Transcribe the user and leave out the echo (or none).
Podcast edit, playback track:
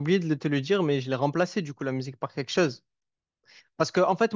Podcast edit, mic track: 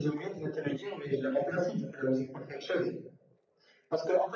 none